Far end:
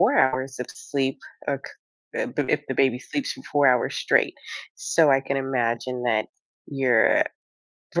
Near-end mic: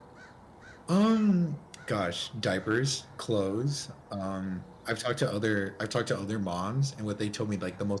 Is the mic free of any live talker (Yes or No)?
No